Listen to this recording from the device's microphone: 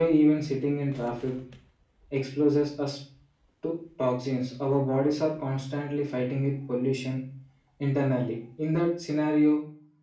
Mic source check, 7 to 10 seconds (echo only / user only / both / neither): echo only